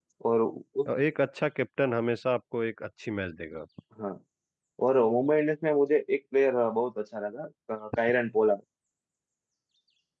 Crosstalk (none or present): none